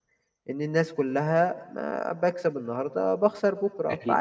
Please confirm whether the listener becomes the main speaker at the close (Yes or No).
Yes